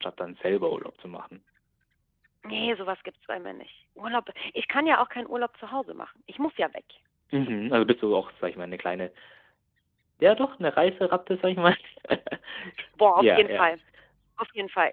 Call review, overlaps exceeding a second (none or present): none